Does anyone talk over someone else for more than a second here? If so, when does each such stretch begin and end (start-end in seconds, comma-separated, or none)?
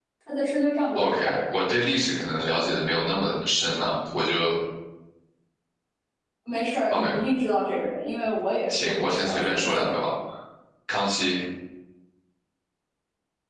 8.7-10.1